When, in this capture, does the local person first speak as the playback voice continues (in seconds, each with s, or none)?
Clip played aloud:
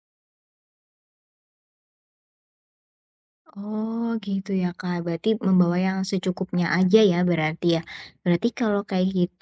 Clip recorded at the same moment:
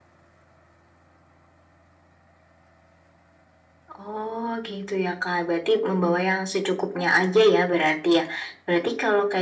none